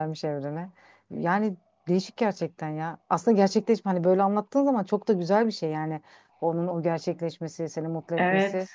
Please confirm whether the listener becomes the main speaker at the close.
Yes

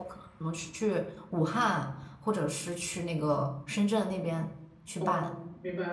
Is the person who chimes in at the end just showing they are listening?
No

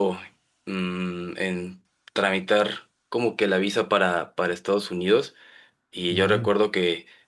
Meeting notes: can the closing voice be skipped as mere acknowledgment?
Yes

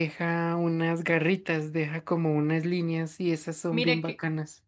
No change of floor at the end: No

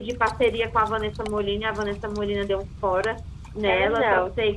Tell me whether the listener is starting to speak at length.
No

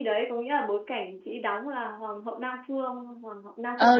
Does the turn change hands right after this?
Yes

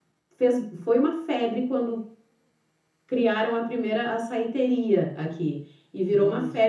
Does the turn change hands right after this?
No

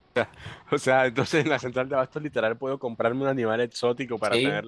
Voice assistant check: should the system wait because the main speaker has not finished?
No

